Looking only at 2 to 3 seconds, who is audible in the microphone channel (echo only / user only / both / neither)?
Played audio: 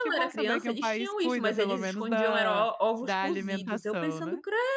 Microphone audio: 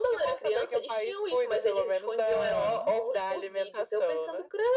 both